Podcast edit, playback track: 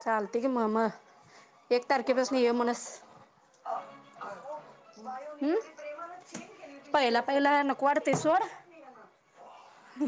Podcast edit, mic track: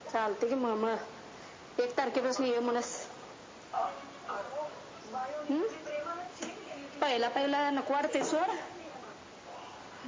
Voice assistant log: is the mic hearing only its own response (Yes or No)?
Yes